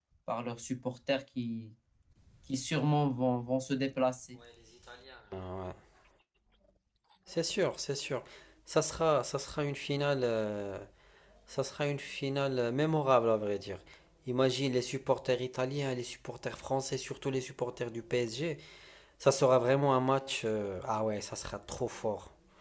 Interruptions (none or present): none